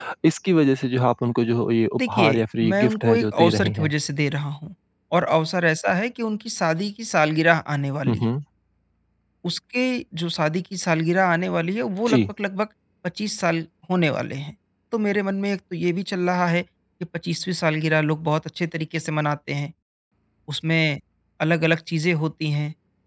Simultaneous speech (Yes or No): Yes